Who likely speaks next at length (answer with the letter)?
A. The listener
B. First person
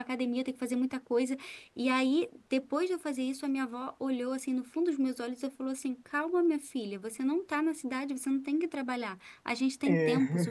B